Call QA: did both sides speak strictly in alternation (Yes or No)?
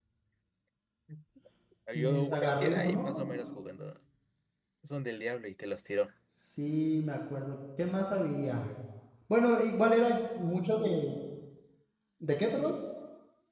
No